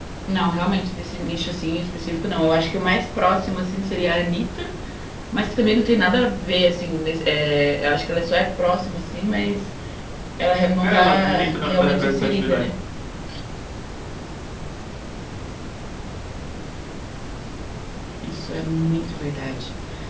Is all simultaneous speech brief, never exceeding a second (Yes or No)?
No